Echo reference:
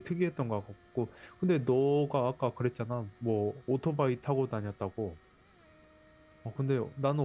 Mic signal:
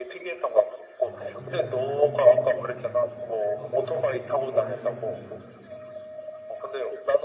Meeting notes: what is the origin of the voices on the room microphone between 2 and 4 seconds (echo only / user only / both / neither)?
both